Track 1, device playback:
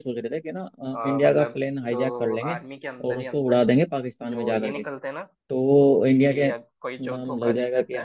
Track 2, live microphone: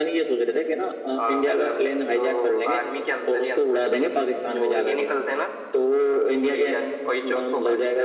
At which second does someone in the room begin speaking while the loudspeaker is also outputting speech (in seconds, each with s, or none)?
none